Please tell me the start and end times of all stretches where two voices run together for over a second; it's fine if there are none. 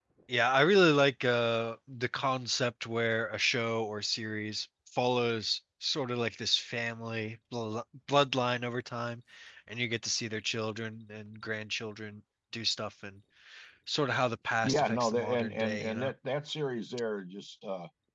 14.6-16.1

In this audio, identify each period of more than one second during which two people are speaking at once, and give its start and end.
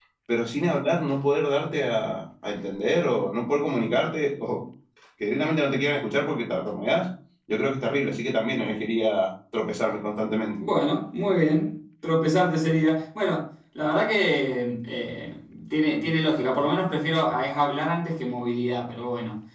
none

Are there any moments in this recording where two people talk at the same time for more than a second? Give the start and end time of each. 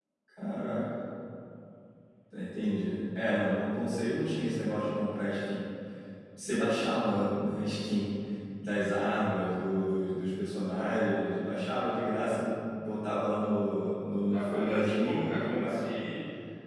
14.3-16.0

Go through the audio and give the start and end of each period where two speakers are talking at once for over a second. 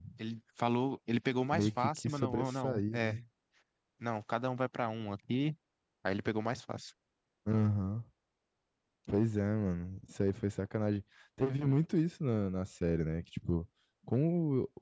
1.5-3.1

